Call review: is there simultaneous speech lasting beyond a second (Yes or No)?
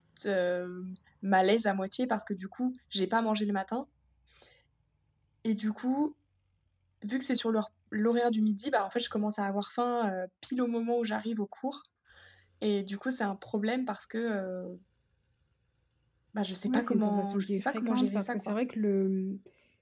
Yes